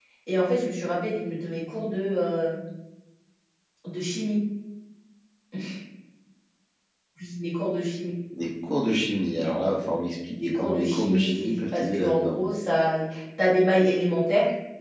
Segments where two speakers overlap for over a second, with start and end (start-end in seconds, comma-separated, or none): 10.4-12.4